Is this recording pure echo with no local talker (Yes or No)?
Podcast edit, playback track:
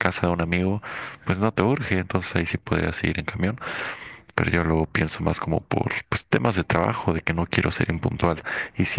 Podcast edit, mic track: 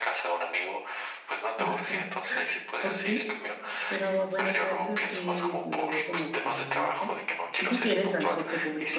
No